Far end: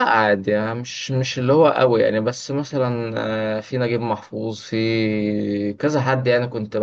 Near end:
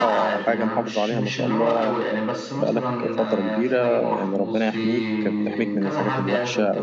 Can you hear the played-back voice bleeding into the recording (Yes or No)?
Yes